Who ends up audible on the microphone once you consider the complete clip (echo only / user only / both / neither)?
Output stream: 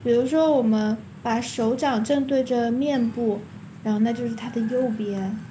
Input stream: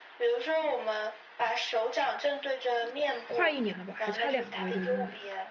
both